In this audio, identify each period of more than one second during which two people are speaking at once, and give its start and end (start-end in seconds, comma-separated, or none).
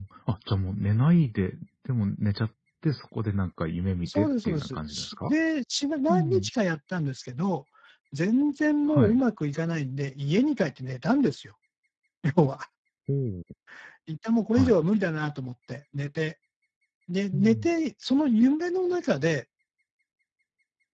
4.0-5.3